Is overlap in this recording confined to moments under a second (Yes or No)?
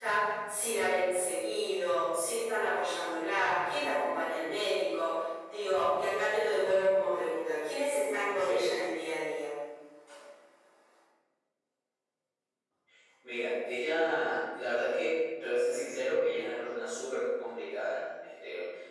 Yes